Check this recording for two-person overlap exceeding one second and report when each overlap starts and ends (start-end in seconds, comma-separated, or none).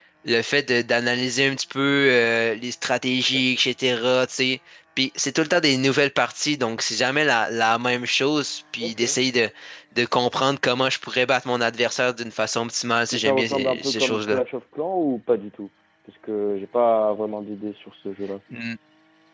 13.1-14.4